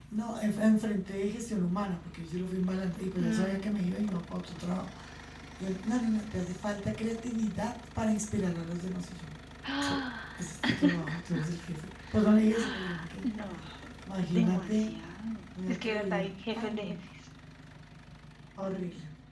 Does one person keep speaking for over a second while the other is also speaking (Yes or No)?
Yes